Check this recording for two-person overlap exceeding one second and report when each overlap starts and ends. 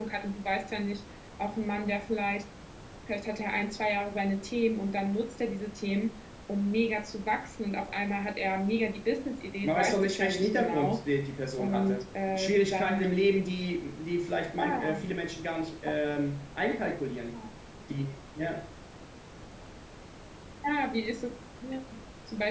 9.6-11.0, 11.6-13.1

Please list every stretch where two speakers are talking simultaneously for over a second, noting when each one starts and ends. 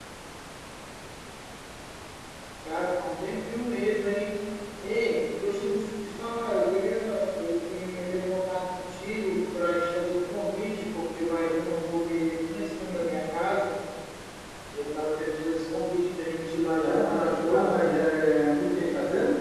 16.8-18.0

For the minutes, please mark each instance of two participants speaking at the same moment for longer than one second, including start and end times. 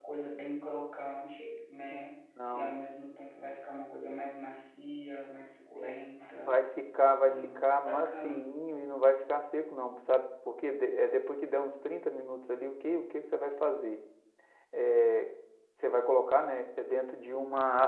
7.2-8.5

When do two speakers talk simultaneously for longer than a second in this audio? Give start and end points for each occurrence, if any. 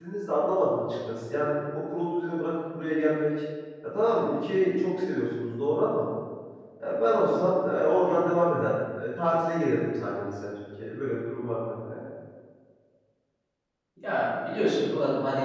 none

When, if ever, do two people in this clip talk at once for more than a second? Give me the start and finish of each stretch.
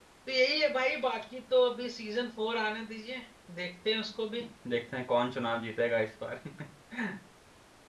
none

